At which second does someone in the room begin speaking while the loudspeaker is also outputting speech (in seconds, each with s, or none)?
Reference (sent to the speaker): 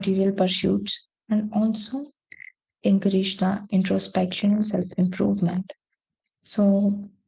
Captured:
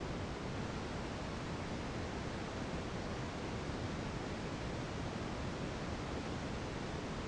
none